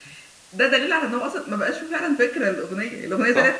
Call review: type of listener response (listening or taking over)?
taking over